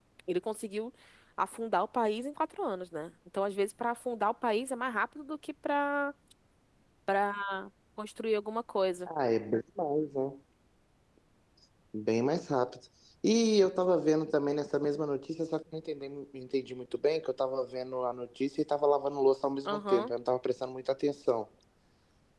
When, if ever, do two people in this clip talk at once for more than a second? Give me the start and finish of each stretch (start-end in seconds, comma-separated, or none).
none